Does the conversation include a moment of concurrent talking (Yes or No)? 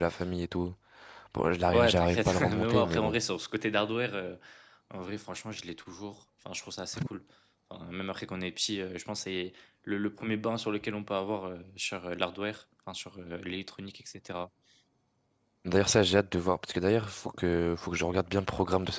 Yes